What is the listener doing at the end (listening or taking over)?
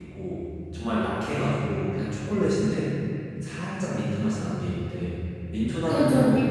taking over